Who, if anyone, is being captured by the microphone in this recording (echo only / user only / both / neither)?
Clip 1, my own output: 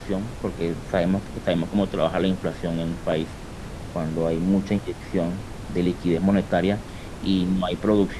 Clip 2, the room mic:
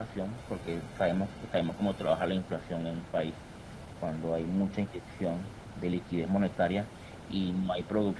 echo only